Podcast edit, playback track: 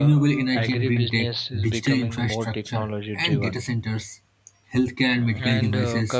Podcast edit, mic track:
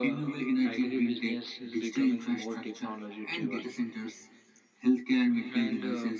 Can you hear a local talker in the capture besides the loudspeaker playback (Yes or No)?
No